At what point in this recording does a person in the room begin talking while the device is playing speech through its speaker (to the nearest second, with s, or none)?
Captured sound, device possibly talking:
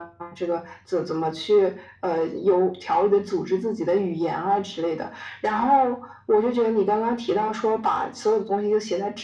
none